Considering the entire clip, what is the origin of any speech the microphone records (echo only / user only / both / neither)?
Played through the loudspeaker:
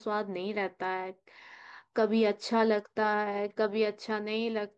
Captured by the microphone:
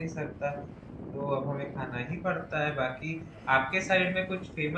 user only